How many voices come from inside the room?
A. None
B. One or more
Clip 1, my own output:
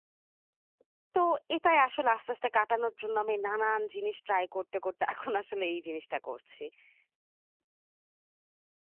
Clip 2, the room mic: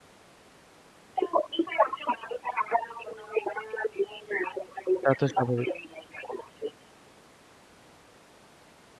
B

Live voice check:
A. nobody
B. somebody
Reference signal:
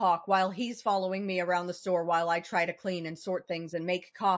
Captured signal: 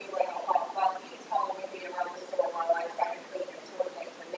A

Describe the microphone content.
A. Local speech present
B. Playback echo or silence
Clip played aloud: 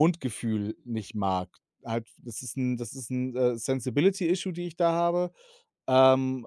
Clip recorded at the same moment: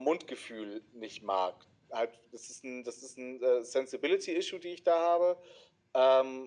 B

